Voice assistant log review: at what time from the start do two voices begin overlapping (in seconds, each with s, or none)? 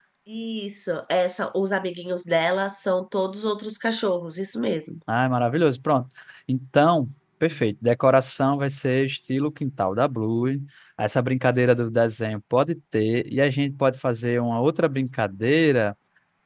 none